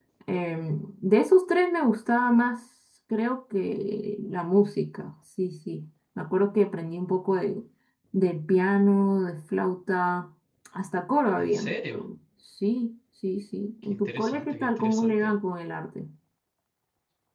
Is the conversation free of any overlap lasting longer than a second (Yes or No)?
No